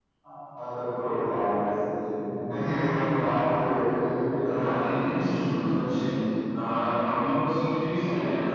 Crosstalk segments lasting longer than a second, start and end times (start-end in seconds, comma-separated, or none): none